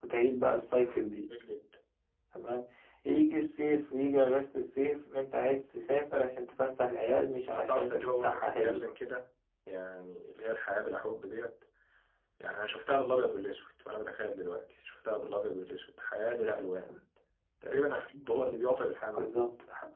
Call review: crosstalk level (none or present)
present